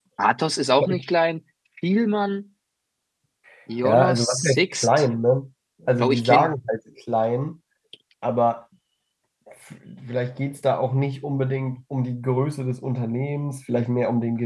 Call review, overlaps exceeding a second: present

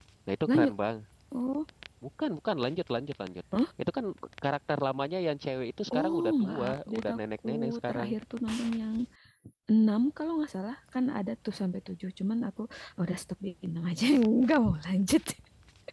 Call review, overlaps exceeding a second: present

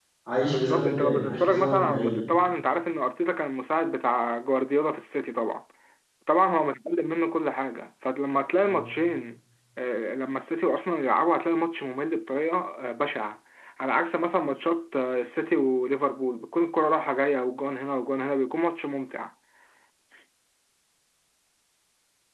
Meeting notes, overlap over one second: present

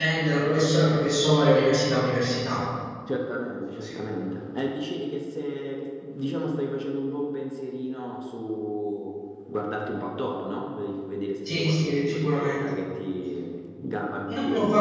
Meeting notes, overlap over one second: present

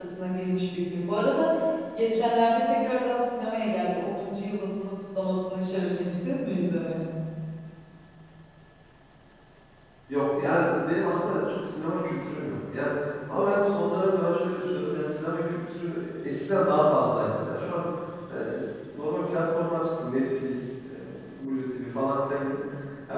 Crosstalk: none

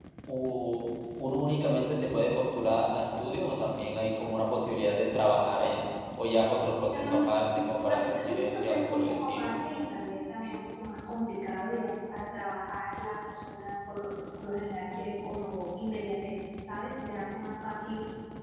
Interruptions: present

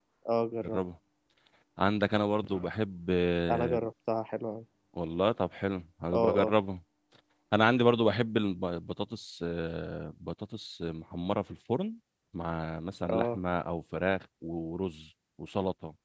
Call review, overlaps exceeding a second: none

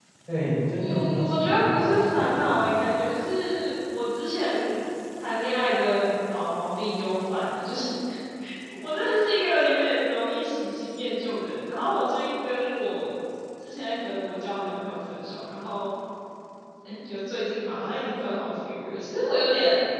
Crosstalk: present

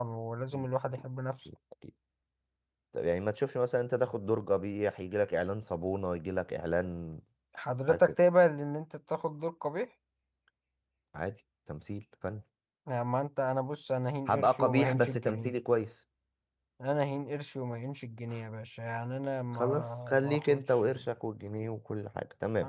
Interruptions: present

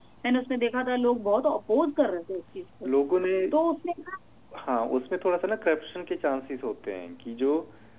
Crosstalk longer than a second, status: none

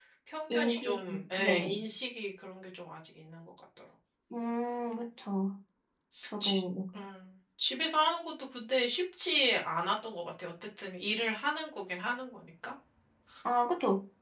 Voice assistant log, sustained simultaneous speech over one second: present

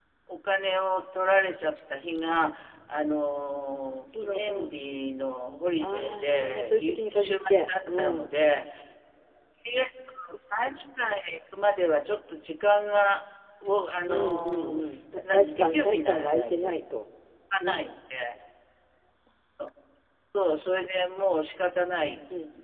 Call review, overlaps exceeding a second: present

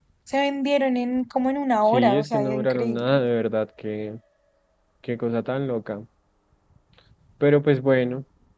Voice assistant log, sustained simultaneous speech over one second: present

